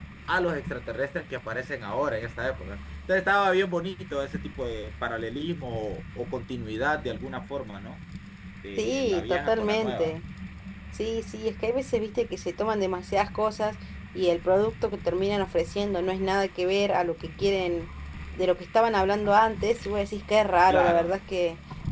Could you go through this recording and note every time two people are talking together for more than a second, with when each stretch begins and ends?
8.8-10.1

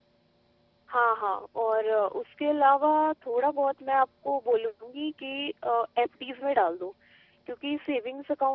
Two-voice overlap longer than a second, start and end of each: none

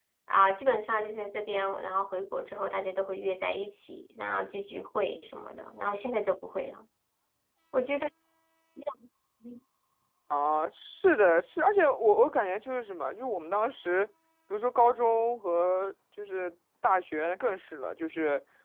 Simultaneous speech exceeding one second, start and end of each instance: none

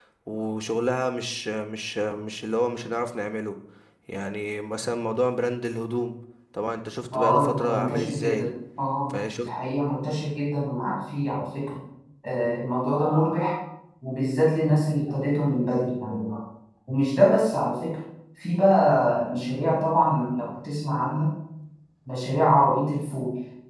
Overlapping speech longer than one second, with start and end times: 7.1-8.5

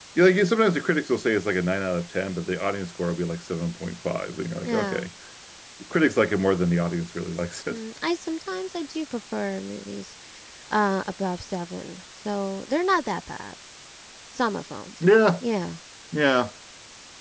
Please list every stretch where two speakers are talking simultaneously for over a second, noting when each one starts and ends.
none

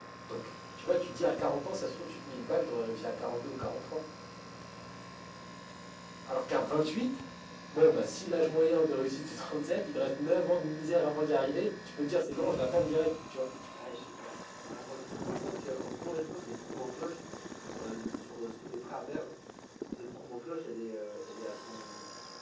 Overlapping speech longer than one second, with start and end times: none

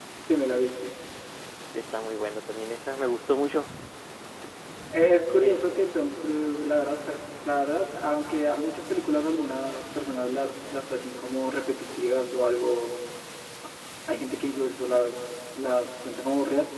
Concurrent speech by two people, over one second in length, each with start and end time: none

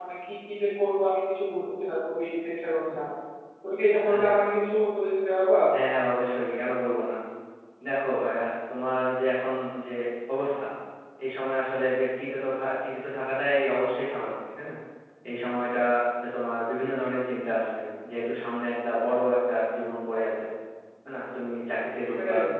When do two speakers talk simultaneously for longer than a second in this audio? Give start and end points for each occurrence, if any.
none

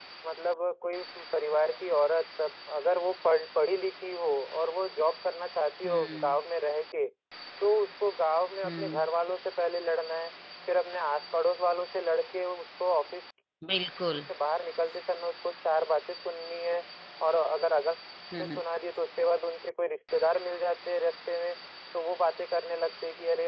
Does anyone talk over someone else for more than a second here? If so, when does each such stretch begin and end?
none

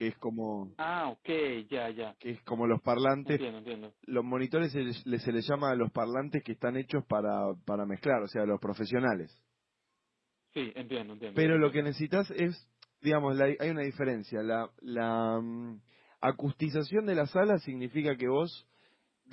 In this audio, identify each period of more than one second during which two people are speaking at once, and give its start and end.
none

